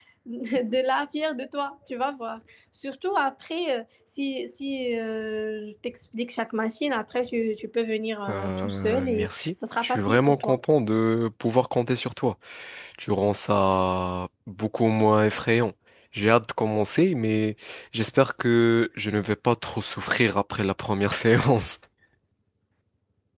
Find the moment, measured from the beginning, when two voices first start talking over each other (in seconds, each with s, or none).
8.3 s